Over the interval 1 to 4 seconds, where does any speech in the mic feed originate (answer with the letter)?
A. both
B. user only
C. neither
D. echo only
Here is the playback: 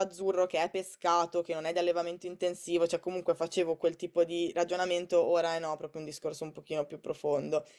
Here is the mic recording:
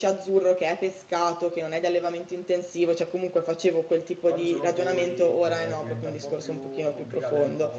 D